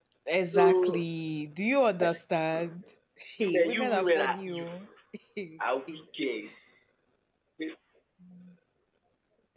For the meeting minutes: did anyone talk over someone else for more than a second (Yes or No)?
Yes